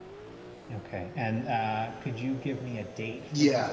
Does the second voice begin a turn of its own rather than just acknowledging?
Yes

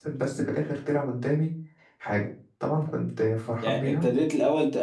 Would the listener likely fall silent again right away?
No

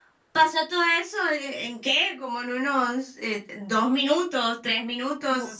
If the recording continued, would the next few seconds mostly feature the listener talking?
Yes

